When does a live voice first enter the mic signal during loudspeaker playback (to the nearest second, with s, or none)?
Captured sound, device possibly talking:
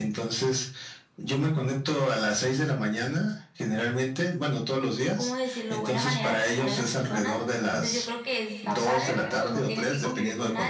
5 s